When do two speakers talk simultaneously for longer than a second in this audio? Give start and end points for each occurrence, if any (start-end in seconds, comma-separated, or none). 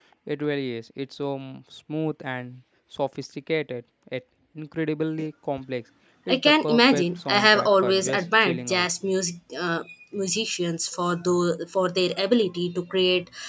6.3-8.9